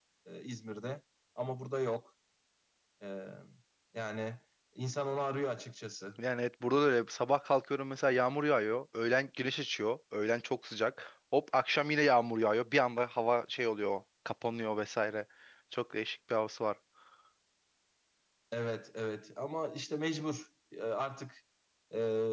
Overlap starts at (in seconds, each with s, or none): none